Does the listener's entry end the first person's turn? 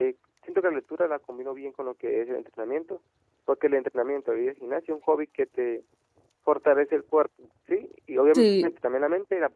No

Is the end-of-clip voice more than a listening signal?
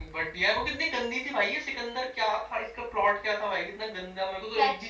Yes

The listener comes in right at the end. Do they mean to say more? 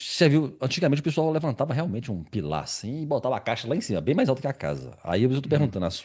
No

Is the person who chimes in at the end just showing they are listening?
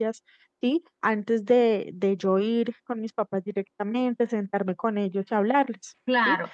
No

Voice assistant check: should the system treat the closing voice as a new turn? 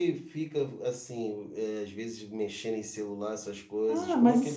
Yes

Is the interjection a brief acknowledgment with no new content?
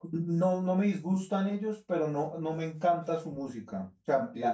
No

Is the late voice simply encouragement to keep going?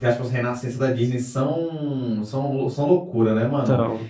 Yes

